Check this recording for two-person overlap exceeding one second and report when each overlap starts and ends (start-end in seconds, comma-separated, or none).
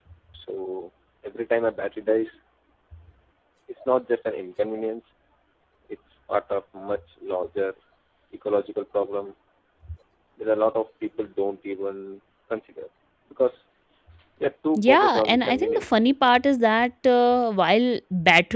14.8-16.3